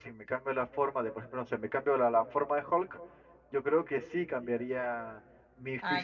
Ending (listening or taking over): taking over